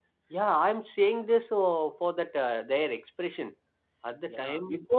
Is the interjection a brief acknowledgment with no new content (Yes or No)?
No